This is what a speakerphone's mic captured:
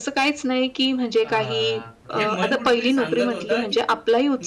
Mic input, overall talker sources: both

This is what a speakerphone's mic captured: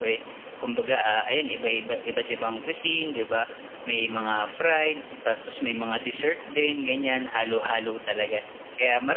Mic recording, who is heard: echo only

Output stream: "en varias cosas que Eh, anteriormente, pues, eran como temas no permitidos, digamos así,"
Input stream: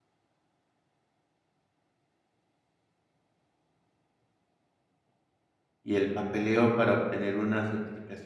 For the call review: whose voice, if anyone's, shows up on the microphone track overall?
user only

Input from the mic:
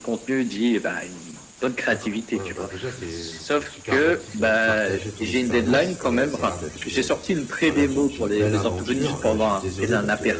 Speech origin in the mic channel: both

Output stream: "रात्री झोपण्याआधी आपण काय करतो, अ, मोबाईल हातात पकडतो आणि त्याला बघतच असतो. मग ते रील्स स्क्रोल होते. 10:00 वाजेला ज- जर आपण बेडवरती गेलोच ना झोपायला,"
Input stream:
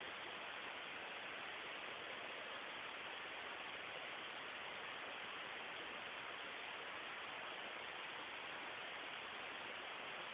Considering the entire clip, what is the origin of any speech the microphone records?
neither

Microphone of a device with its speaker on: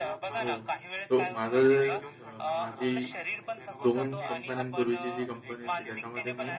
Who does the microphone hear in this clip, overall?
both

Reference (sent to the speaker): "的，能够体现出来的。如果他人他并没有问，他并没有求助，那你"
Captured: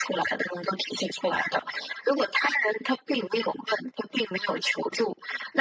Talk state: echo only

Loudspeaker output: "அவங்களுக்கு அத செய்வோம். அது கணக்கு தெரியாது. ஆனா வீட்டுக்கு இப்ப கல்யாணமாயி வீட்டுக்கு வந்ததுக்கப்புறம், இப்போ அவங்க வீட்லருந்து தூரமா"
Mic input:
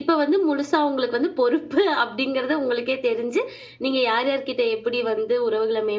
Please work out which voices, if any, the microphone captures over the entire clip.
user only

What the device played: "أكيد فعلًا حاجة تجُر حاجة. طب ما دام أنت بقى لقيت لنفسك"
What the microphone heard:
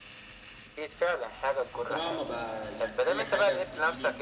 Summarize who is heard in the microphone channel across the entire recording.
both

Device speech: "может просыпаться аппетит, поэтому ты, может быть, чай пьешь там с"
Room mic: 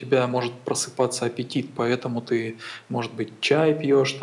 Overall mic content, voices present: echo only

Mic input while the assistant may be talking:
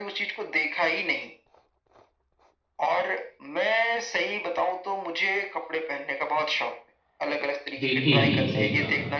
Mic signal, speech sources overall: both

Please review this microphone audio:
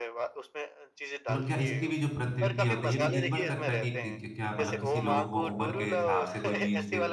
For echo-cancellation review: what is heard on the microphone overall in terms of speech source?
both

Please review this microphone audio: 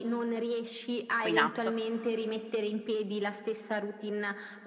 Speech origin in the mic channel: both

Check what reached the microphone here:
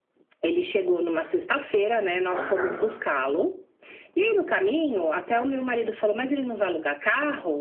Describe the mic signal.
both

